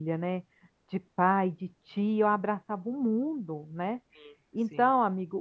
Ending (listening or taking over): listening